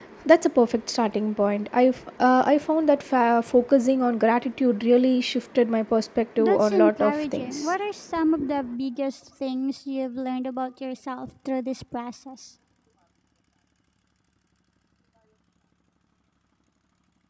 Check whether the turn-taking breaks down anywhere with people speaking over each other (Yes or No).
Yes